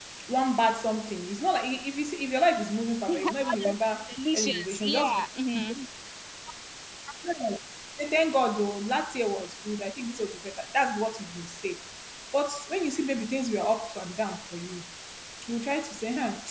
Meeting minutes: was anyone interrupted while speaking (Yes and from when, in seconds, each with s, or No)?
Yes, from 3.1 s